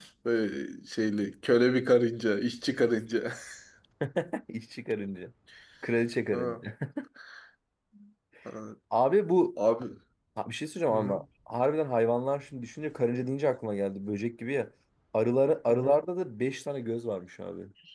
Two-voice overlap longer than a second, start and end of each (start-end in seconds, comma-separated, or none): none